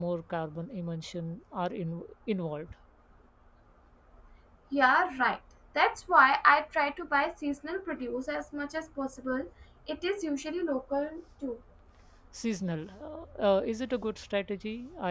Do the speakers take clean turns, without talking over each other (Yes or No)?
Yes